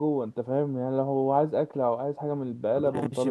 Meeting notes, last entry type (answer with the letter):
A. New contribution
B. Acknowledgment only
A